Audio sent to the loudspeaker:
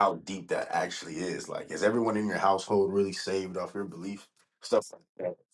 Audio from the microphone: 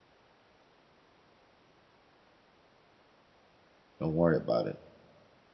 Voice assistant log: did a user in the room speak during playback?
Yes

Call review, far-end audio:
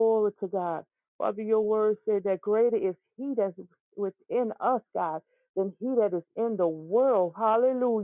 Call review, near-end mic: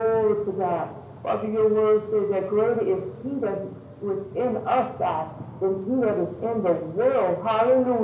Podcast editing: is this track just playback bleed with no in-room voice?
Yes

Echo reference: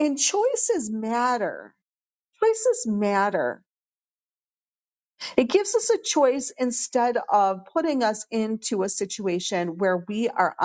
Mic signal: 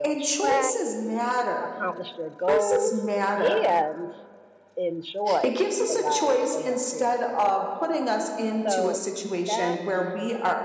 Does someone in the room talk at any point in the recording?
Yes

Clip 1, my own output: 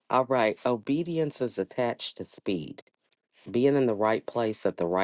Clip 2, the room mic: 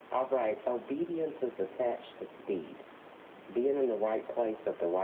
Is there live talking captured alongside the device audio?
No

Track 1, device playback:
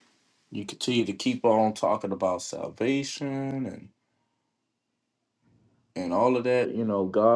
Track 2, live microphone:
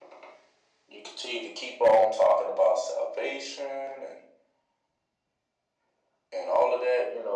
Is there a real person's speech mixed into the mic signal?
No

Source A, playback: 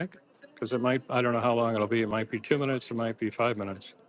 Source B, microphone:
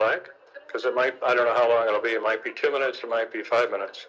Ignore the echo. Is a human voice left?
No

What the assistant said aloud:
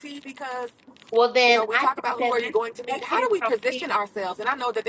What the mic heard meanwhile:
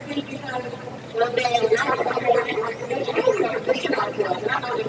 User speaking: No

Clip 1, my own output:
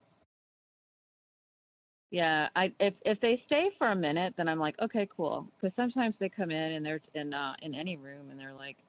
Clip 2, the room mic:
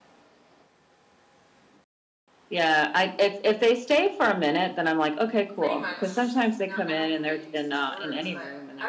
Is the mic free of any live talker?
No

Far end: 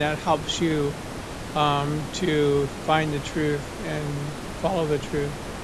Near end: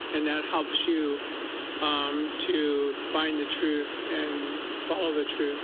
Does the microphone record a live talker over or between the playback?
No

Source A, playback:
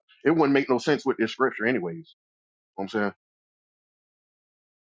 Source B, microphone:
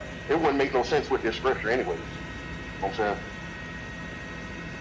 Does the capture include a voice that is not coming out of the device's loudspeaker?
No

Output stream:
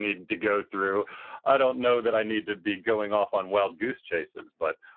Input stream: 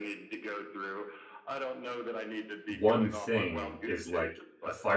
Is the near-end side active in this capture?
Yes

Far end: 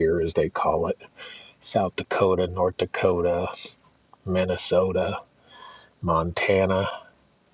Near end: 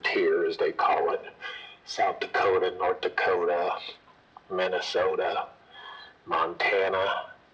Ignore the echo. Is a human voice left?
No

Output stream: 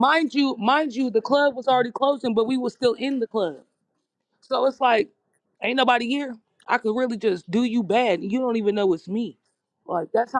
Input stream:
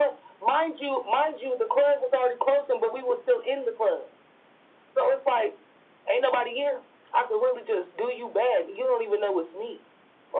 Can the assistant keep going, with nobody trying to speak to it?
Yes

